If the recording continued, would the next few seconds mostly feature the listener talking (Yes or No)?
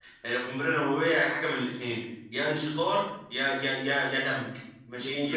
Yes